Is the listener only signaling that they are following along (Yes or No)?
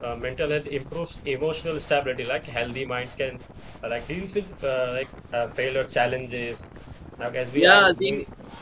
No